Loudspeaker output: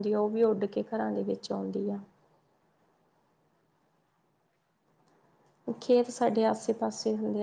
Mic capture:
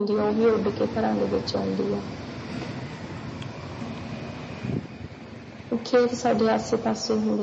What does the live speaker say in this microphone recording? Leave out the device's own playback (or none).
none